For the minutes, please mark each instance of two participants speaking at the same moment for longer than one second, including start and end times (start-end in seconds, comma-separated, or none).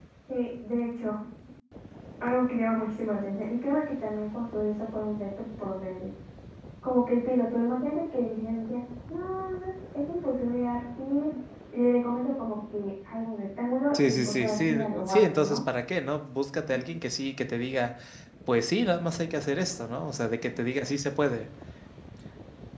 13.9-15.6